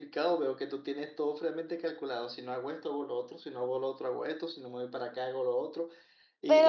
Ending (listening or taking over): taking over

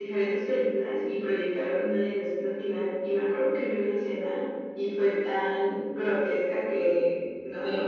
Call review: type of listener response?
listening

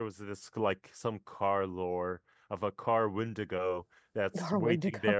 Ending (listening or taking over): listening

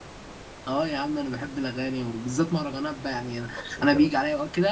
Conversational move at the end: listening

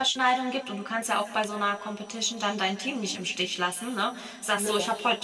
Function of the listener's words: listening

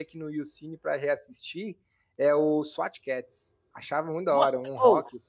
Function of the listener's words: taking over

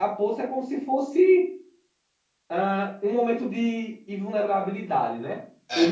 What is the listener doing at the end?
listening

